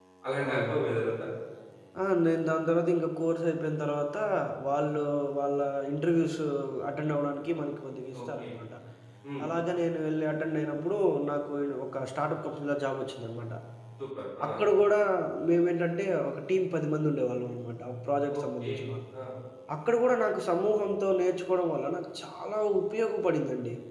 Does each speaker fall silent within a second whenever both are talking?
Yes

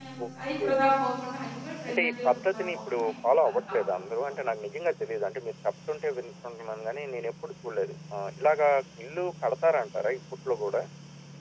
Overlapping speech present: Yes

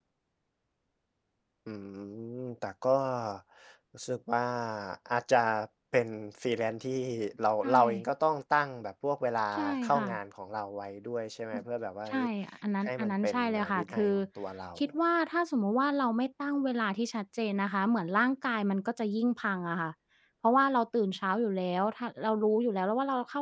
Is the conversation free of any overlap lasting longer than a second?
No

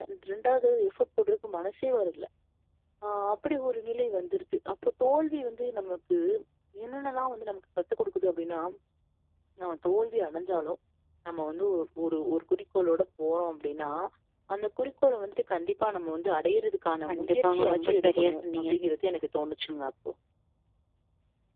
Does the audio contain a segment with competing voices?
Yes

